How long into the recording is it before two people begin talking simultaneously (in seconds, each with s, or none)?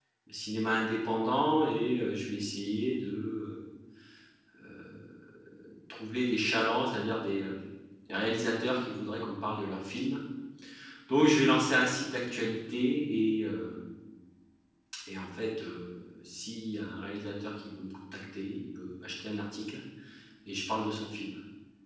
none